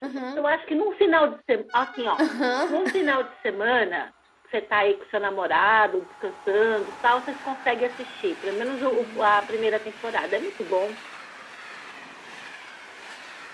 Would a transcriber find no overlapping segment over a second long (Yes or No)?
Yes